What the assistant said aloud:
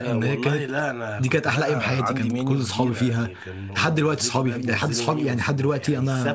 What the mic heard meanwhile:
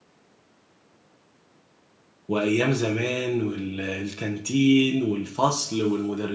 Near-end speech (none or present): present